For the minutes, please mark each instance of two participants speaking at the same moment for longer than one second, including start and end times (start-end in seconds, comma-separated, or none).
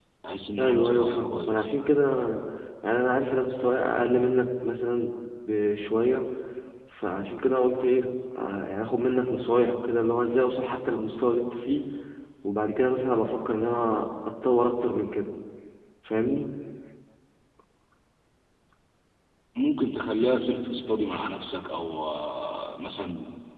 0.6-1.9